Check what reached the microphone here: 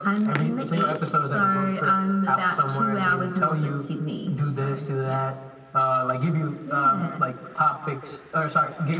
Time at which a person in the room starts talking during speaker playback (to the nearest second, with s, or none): none